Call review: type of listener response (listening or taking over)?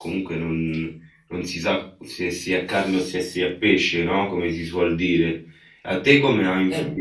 listening